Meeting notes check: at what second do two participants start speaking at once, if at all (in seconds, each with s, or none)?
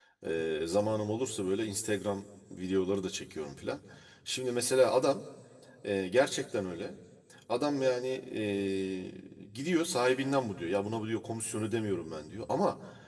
none